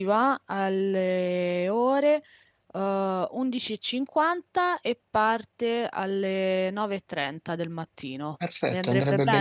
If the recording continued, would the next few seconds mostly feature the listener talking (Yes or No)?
Yes